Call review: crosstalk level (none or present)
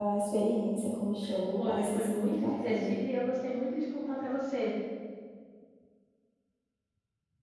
present